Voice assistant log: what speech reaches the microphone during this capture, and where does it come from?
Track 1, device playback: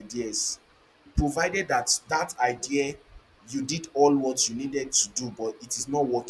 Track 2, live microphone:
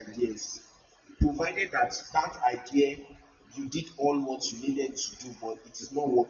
echo only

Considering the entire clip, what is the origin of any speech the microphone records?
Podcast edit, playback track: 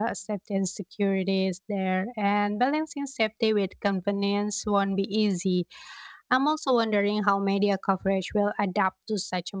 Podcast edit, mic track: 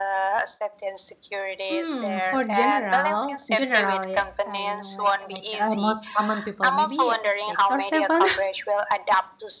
both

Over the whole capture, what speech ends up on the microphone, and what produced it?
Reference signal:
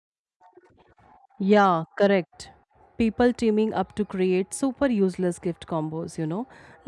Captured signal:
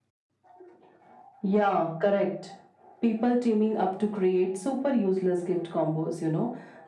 echo only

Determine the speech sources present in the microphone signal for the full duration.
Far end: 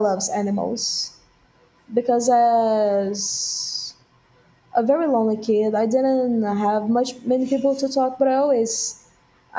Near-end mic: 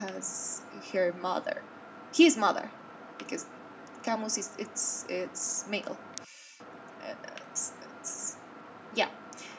user only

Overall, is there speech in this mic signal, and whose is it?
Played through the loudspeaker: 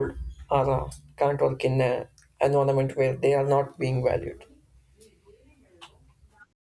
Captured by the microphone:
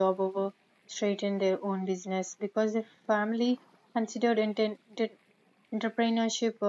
user only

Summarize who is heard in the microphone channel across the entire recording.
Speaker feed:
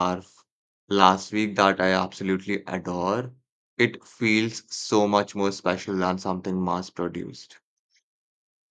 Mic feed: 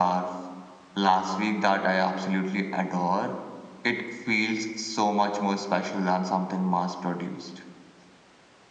echo only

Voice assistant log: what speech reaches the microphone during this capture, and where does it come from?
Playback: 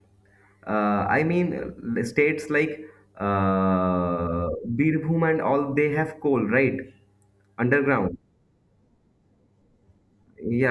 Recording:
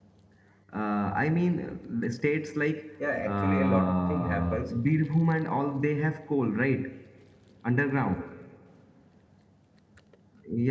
both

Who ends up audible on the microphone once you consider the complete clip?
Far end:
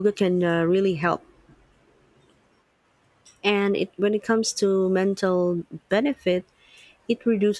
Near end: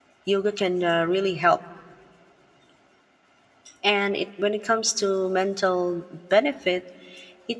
echo only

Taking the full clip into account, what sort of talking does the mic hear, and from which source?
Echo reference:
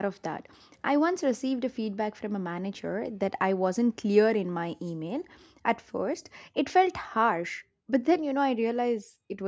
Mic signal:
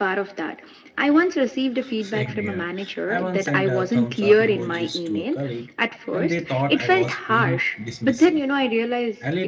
both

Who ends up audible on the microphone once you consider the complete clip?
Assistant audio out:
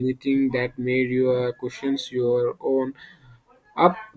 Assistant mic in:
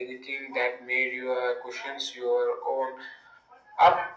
echo only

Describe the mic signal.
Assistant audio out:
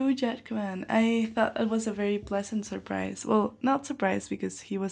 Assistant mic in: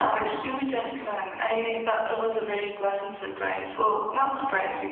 echo only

